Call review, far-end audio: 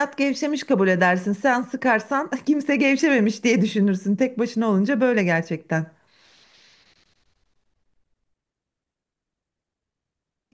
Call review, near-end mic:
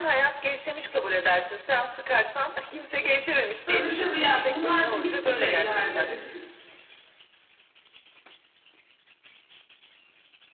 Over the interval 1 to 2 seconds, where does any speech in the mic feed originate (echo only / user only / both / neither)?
echo only